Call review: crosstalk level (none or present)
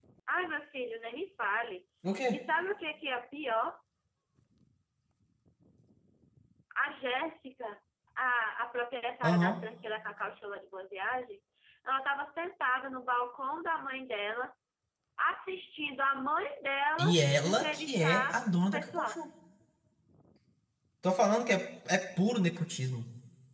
present